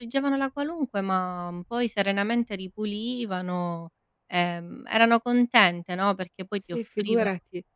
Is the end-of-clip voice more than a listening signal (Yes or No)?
Yes